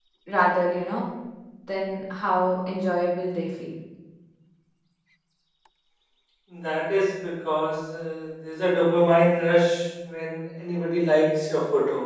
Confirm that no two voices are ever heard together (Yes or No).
Yes